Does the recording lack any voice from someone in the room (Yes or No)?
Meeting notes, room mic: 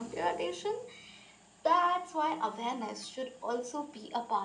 Yes